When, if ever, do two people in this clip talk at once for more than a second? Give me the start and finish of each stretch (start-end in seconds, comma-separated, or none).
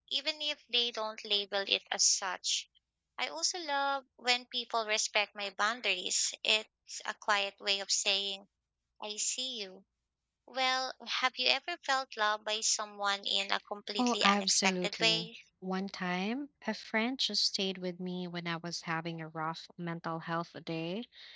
14.0-15.3